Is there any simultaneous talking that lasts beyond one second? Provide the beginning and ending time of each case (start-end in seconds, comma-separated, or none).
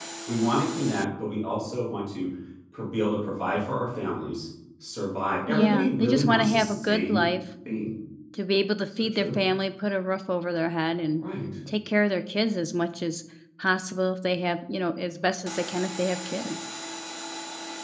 5.5-7.2